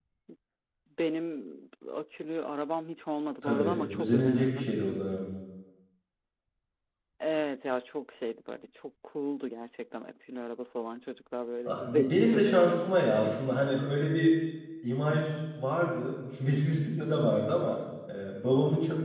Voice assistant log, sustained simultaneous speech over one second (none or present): present